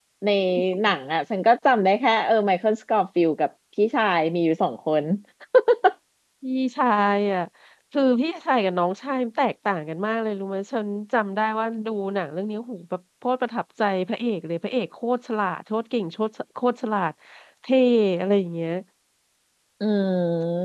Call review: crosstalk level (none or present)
none